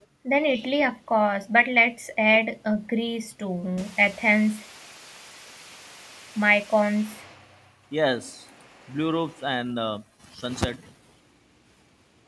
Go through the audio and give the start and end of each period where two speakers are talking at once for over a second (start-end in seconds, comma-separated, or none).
none